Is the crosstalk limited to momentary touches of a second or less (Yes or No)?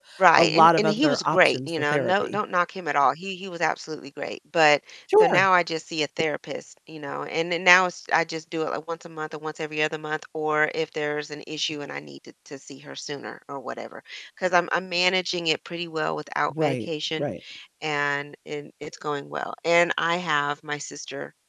No